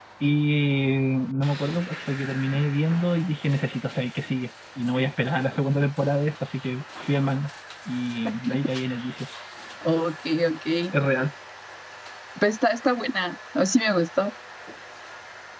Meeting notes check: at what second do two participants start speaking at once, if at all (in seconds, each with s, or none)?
none